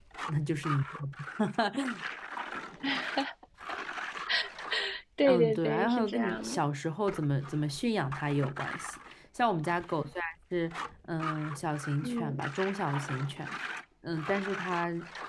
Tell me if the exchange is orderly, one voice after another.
No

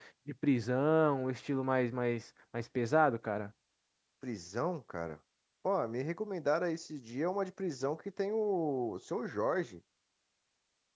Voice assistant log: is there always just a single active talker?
Yes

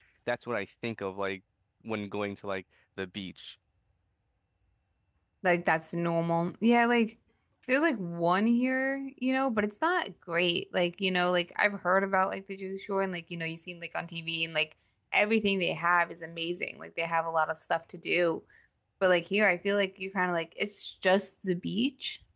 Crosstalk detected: No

